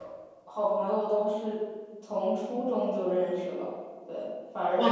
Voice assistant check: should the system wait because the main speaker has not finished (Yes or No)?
Yes